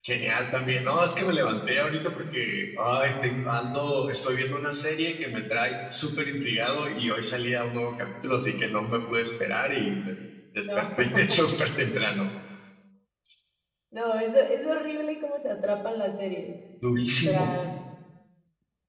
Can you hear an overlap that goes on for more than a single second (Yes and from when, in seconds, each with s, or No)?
No